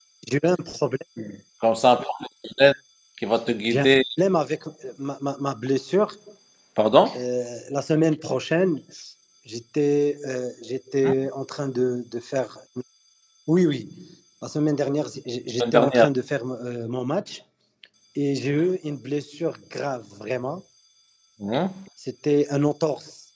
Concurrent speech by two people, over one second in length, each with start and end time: none

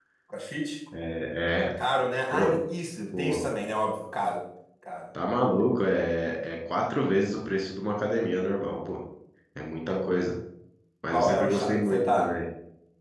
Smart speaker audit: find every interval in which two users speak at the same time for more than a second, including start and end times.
11.1-12.3

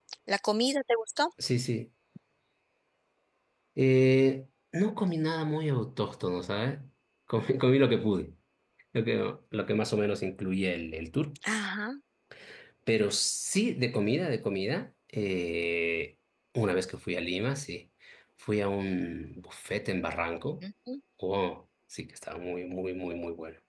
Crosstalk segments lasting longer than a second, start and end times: none

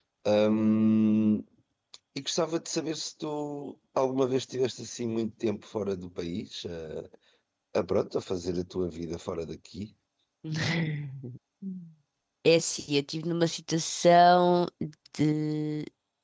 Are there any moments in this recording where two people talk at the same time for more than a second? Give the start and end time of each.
none

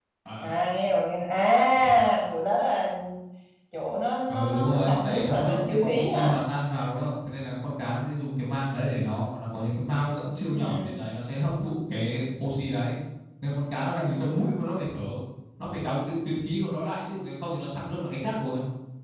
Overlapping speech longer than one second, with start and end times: 4.3-6.4

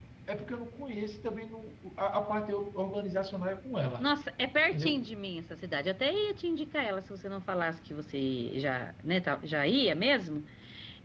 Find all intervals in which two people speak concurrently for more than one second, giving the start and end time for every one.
none

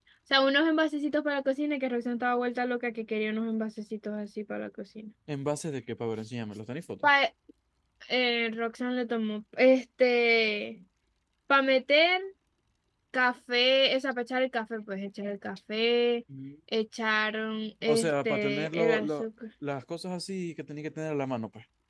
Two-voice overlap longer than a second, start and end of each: 17.9-19.2

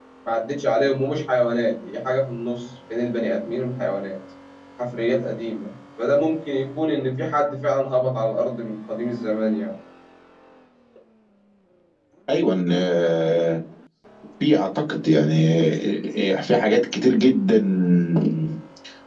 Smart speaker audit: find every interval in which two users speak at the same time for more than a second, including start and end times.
none

